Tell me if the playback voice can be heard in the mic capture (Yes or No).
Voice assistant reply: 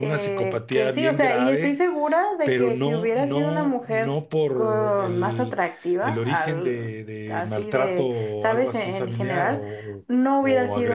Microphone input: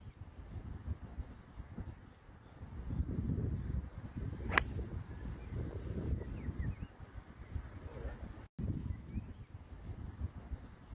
No